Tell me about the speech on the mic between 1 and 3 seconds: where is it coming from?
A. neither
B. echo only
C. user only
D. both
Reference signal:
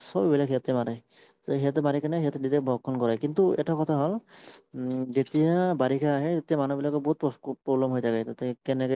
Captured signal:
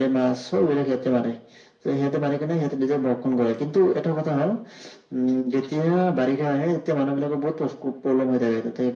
B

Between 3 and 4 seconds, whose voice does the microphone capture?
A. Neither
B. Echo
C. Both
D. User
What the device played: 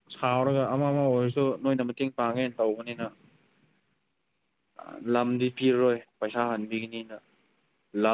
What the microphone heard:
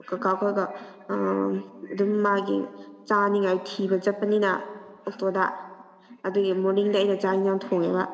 D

